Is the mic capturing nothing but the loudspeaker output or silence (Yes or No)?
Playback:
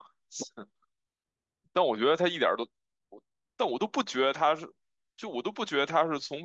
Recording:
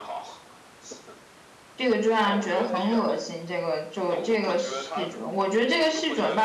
No